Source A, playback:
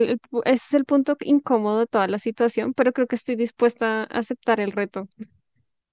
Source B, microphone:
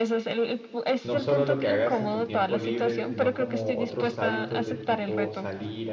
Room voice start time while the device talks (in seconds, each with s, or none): 1.0 s